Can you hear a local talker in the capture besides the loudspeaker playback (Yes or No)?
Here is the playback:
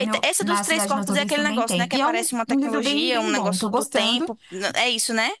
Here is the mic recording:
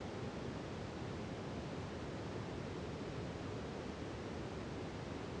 No